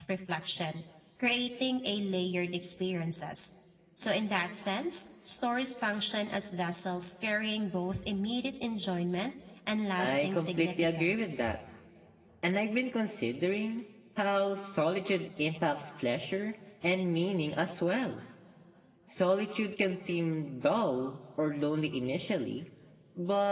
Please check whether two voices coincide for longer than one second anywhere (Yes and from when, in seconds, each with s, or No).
Yes, from 10.0 s